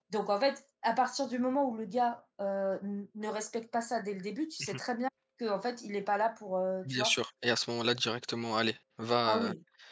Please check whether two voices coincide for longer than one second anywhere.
No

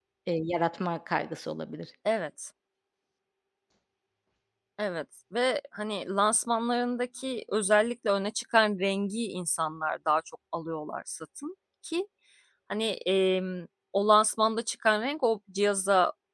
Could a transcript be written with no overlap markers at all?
Yes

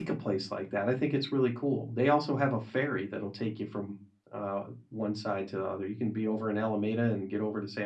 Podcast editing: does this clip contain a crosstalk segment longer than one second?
No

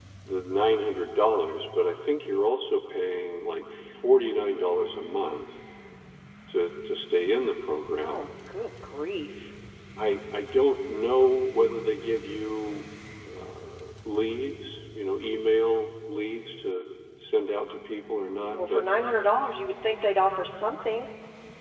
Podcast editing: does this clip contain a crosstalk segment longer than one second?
No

